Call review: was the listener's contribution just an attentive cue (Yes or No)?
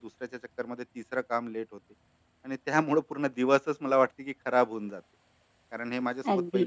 Yes